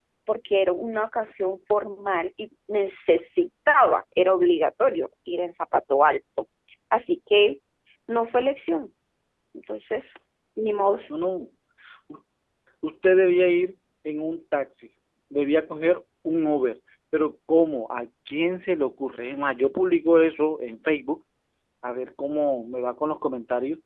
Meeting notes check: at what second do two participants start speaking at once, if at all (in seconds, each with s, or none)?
none